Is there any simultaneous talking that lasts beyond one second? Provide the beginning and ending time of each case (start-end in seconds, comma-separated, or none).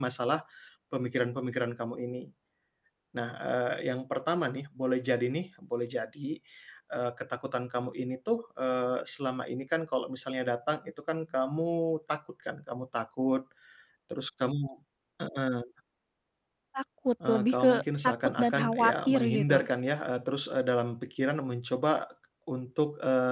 17.3-19.7